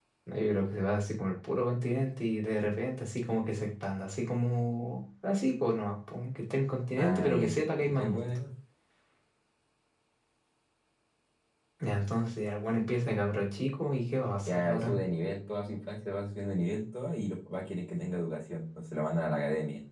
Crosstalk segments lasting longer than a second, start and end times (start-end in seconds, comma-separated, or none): 7.0-8.4